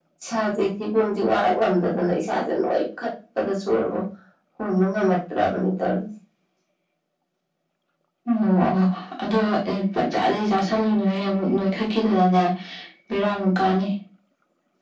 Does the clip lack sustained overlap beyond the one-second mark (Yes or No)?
Yes